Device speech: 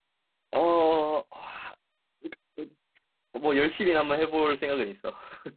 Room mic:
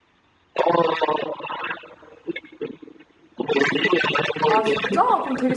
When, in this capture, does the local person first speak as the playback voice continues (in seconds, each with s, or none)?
4.5 s